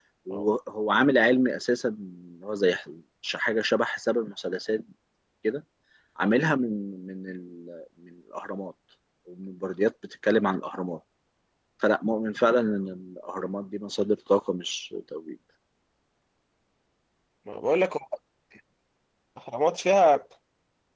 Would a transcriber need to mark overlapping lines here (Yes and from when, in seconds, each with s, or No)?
No